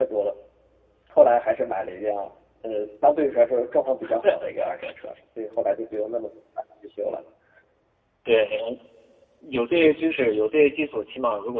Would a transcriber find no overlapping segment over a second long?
Yes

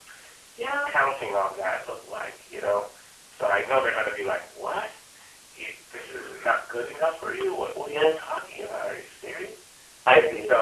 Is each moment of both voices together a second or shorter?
Yes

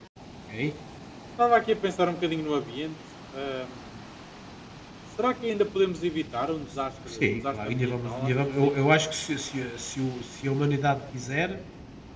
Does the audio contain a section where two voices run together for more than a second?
Yes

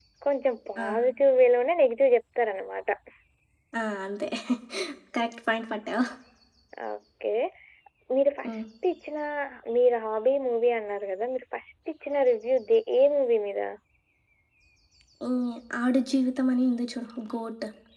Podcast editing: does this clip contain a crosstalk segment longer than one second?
No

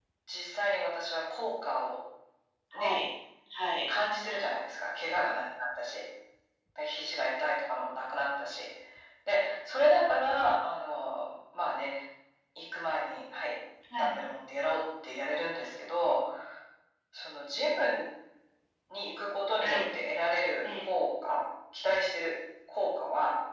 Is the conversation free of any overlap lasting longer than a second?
Yes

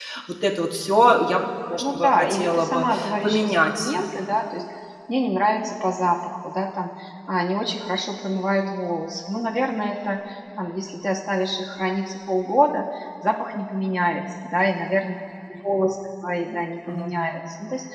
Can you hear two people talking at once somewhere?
Yes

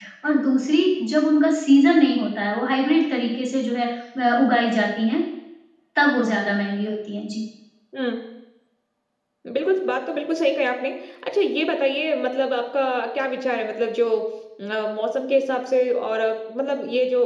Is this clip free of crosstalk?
Yes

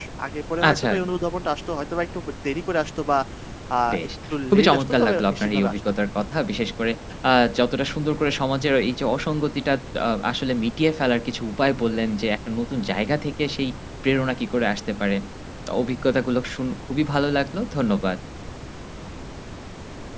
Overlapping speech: Yes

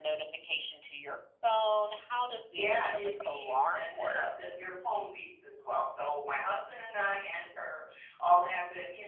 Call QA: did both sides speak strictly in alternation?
No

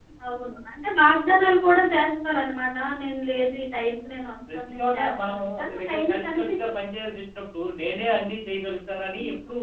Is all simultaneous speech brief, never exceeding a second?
No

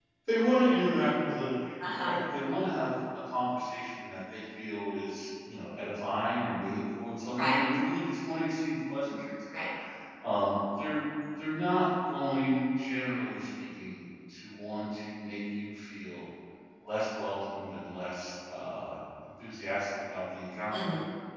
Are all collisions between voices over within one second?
Yes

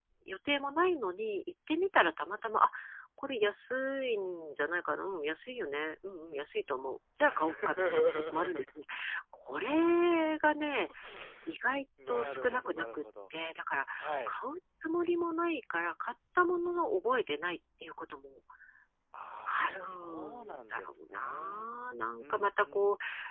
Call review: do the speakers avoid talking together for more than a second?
No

